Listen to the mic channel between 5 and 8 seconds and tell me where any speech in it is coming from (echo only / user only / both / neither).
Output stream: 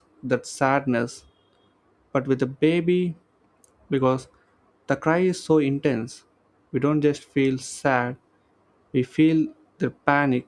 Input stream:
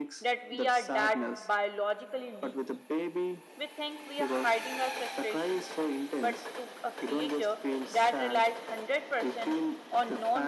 both